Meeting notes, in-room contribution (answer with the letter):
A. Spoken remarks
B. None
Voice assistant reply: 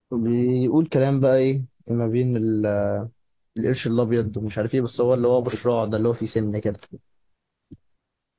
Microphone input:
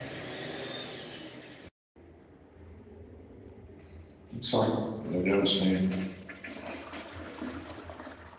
A